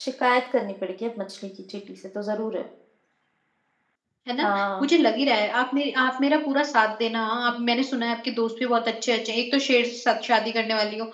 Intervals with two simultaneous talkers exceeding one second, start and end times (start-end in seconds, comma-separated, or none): none